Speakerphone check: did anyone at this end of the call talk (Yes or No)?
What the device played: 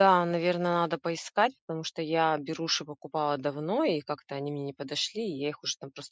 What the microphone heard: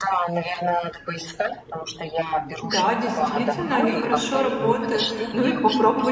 Yes